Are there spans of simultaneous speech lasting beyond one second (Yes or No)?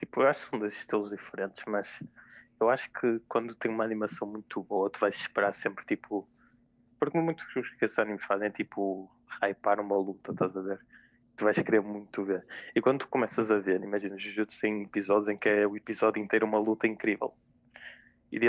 No